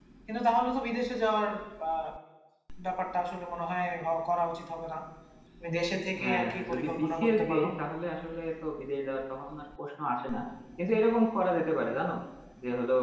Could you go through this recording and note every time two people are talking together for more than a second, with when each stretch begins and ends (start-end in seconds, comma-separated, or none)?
6.2-7.7